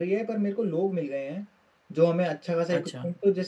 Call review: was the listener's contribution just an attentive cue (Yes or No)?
Yes